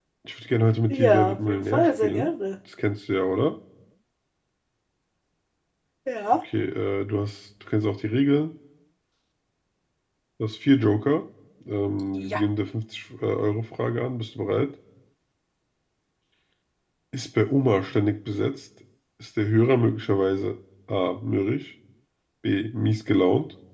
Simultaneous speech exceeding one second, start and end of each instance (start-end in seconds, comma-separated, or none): 0.9-2.3